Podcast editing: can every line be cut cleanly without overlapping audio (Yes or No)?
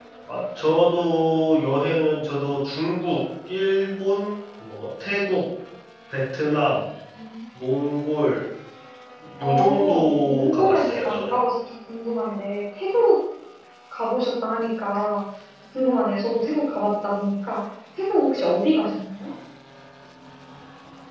No